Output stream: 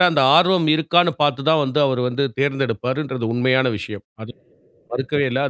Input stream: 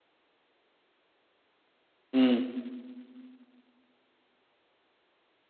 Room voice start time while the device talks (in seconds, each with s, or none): 2.1 s